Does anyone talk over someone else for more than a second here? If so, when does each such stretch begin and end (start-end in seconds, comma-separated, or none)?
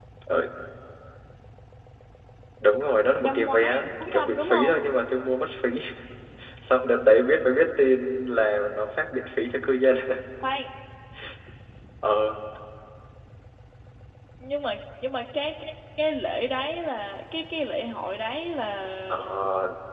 3.2-4.8